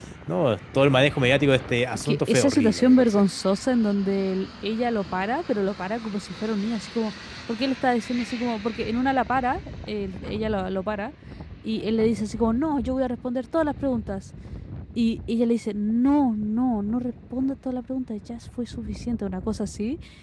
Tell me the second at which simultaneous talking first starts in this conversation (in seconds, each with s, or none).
2.0 s